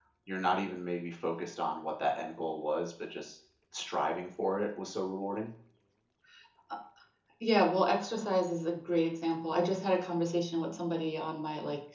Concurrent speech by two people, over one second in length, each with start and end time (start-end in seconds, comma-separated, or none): none